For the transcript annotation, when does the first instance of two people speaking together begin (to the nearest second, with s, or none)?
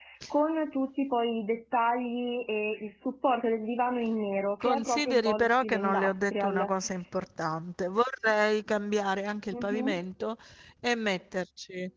5 s